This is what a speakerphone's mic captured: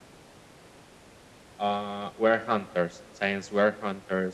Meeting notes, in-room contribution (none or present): none